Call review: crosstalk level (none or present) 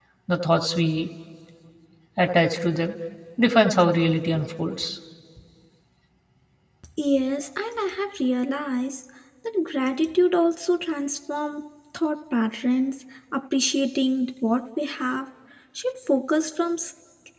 none